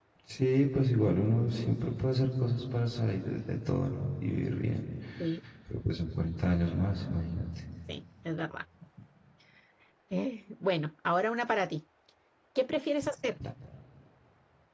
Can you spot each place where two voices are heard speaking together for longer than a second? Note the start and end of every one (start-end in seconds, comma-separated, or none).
none